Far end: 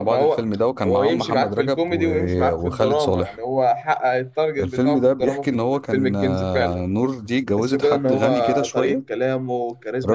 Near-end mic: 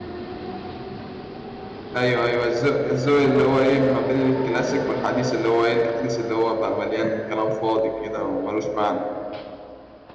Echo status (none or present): none